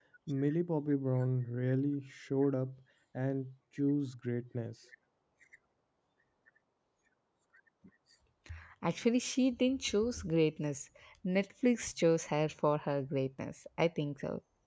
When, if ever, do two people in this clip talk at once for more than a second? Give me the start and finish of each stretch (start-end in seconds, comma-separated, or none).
none